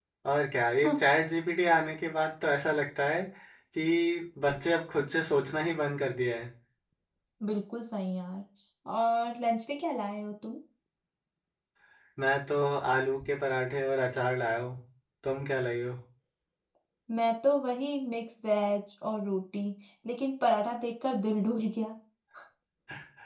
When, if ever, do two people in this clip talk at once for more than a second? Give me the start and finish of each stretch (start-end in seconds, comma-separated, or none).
none